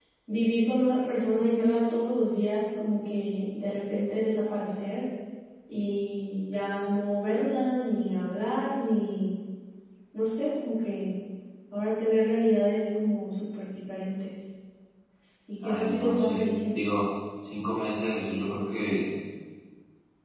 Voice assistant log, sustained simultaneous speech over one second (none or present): present